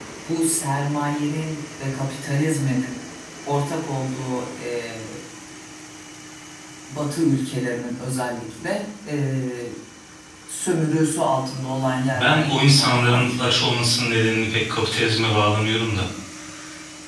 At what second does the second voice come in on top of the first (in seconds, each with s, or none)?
12.1 s